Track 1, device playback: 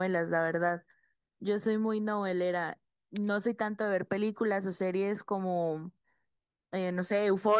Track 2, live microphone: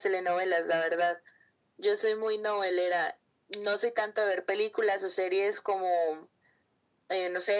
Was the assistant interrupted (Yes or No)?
No